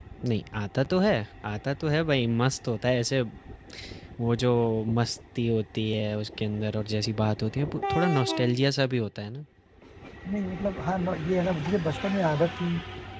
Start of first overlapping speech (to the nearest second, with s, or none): none